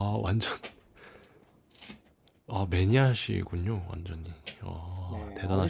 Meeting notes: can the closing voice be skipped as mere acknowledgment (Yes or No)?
No